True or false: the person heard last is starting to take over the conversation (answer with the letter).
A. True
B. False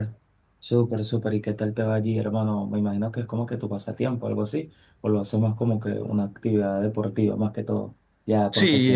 A